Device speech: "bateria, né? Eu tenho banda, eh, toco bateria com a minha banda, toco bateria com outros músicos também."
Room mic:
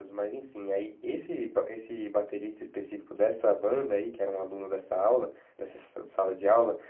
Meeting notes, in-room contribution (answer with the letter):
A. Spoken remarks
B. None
A